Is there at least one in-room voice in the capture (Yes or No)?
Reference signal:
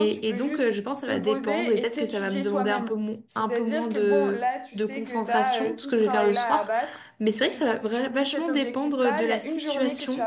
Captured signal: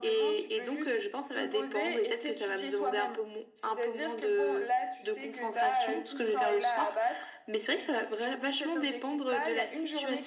No